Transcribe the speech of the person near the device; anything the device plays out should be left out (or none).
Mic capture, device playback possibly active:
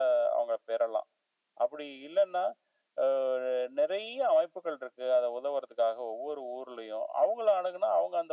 none